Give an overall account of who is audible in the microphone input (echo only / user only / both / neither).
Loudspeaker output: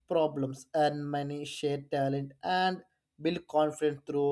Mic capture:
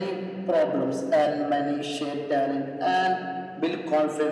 echo only